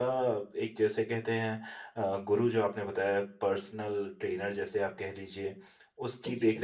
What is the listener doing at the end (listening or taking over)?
listening